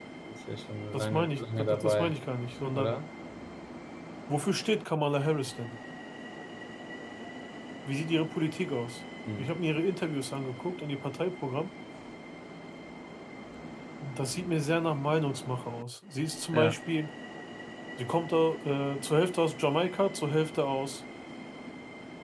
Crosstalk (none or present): present